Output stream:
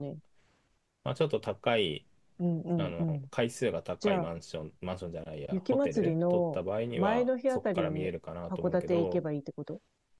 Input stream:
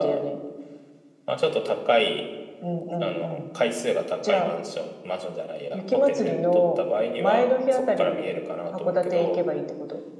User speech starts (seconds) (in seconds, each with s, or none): none